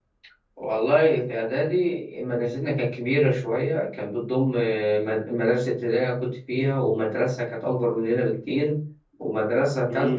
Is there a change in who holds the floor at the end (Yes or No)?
No